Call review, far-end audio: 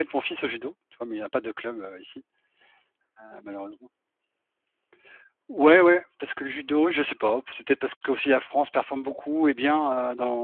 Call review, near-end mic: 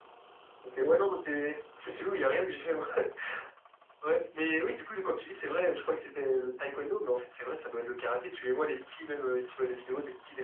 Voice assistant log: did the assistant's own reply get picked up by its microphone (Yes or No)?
No